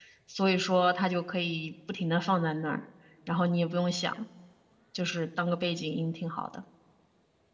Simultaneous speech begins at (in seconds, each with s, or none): none